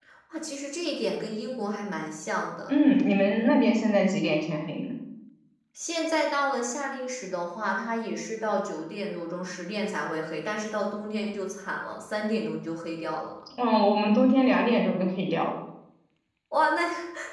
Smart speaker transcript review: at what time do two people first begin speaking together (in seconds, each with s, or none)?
none